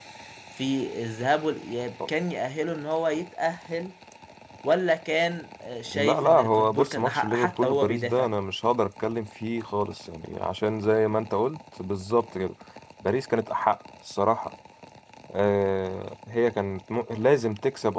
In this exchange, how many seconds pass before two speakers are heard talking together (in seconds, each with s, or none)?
5.9 s